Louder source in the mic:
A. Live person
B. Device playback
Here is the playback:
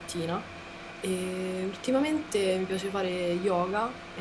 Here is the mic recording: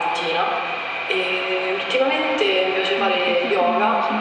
B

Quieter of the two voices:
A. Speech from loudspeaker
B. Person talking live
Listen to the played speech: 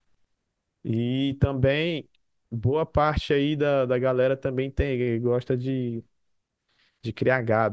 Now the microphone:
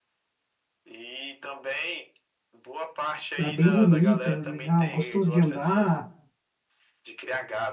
A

